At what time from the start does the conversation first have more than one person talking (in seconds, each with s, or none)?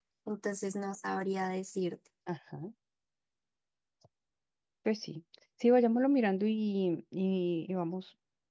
none